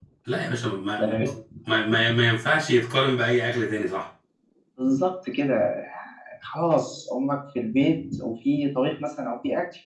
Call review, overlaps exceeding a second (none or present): none